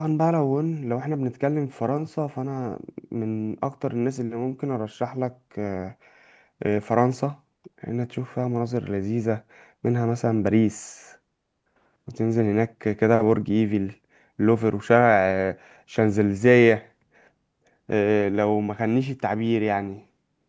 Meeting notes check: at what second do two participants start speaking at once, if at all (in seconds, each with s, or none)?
none